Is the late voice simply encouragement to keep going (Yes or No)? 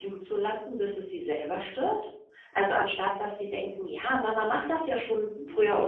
Yes